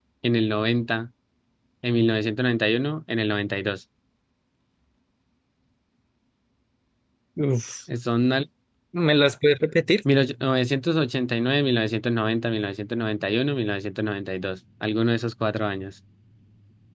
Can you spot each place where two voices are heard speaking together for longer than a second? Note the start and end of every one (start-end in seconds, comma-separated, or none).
none